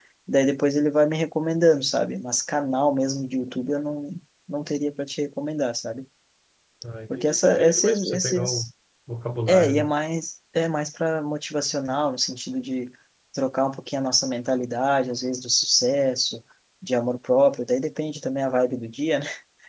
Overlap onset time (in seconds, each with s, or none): 7.1 s